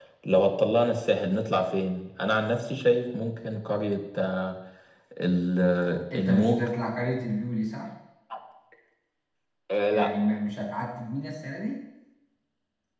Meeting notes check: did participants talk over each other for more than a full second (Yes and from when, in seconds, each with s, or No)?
No